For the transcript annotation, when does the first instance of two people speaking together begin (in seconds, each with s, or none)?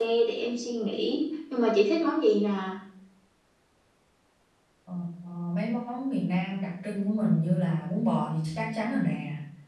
none